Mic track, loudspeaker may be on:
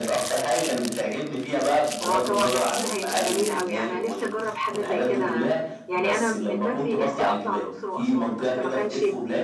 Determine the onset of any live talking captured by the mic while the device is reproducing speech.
2.0 s

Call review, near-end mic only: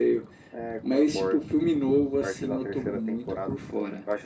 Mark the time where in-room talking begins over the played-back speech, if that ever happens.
none

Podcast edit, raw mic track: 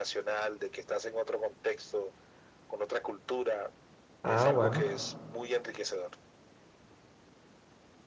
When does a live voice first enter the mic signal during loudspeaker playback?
4.2 s

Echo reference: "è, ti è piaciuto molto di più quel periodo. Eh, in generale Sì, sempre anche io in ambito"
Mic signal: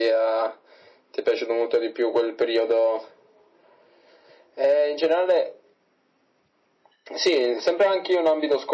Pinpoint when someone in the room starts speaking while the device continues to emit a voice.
none

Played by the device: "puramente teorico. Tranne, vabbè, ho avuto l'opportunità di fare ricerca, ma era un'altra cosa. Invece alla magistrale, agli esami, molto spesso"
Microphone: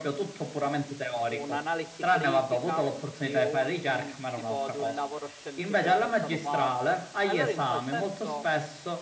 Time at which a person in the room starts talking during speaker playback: 1.2 s

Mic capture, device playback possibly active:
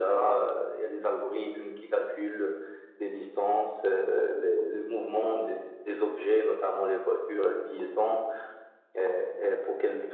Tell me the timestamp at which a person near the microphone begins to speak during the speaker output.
none

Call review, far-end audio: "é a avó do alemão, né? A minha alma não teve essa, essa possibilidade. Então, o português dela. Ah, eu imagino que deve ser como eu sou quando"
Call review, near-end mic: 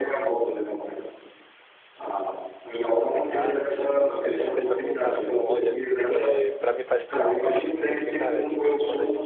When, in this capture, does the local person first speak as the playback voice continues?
3.2 s

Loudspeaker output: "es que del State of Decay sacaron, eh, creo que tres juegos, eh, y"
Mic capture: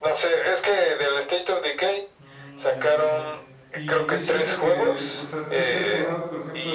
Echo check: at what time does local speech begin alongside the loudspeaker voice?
2.2 s

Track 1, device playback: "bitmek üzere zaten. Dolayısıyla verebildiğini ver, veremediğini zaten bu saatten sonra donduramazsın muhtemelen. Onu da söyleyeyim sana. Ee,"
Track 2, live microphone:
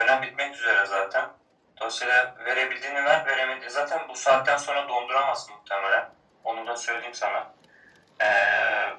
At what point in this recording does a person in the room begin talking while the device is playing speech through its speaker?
none

